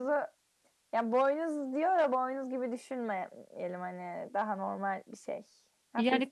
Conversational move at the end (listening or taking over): taking over